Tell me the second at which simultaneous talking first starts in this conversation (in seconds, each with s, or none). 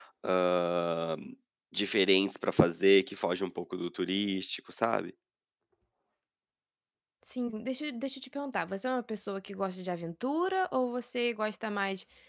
none